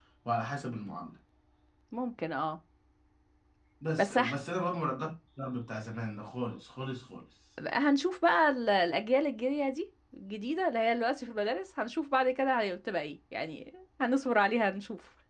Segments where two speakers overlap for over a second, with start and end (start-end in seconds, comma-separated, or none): none